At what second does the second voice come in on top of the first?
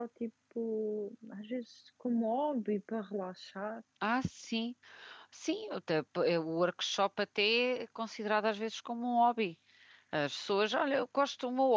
none

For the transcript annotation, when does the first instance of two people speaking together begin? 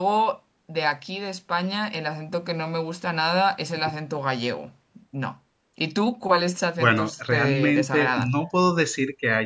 6.8 s

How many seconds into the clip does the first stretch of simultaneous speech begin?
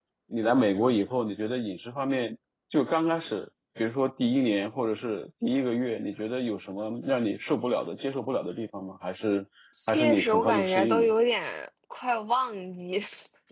9.9 s

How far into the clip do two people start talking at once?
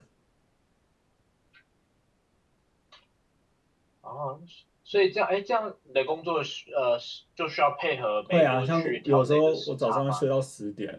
8.3 s

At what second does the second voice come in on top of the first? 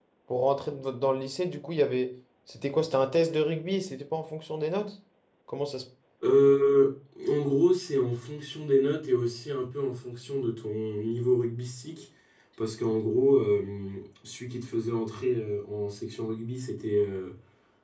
none

